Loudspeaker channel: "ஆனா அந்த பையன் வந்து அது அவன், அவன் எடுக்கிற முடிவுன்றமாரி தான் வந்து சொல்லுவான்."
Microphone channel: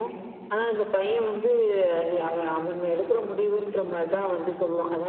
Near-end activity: none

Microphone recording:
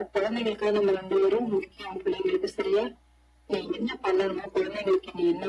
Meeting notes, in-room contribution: none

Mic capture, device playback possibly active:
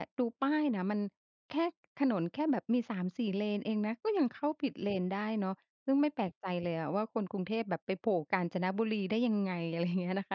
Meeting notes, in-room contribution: present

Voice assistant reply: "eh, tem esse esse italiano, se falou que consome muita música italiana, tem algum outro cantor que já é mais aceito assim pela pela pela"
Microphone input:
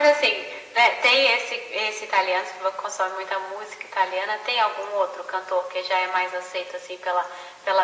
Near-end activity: none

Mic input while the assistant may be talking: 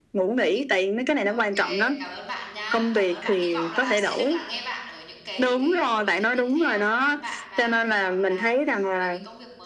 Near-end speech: present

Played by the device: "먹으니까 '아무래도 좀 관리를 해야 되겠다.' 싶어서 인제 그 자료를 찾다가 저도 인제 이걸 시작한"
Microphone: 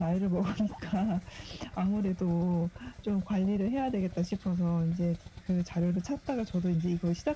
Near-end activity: none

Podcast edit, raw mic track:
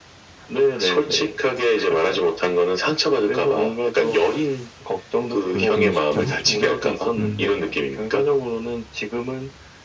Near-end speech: present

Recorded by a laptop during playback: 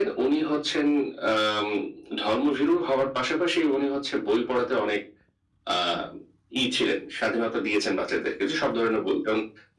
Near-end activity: none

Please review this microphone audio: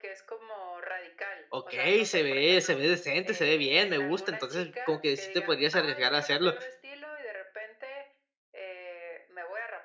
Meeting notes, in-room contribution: present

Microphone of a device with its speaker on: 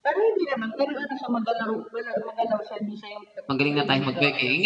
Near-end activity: present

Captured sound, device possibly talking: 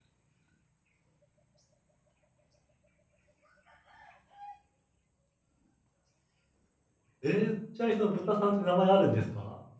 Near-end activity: present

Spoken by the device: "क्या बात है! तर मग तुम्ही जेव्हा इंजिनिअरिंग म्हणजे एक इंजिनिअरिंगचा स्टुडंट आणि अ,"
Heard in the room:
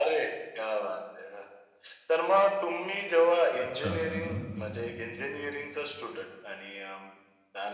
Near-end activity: present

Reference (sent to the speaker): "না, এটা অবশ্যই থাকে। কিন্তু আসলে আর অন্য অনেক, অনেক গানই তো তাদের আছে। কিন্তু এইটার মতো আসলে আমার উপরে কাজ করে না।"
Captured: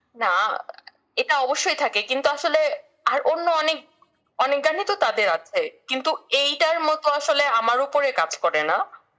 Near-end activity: none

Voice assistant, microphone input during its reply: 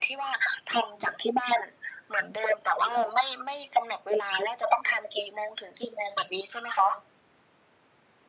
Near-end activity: none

